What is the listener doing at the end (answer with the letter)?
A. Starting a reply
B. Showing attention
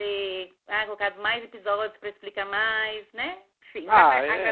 A